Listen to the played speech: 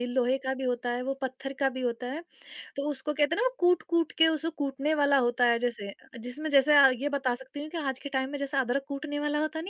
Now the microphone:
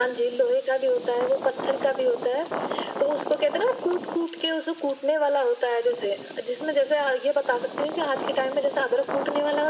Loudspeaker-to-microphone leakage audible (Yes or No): Yes